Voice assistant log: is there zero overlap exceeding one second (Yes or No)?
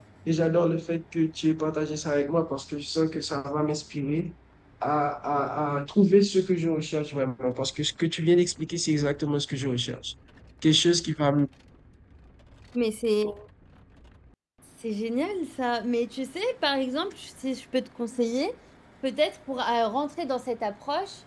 Yes